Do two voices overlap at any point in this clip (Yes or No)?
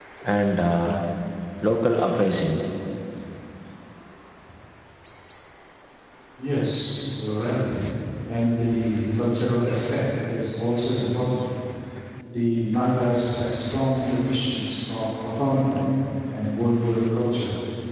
No